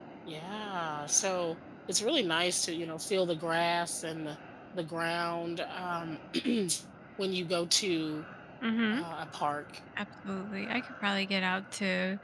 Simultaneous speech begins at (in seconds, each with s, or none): none